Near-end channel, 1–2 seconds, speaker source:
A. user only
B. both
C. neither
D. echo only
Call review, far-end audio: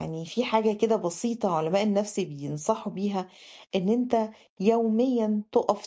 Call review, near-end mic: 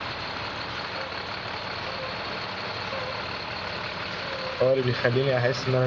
C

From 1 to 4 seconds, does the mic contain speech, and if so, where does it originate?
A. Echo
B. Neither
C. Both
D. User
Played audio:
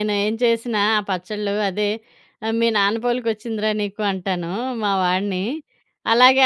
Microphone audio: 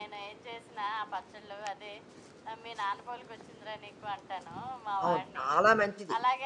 A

